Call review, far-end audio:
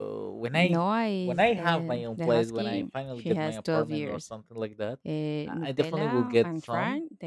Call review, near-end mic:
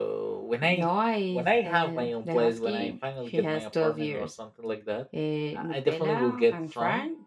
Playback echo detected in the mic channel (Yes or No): Yes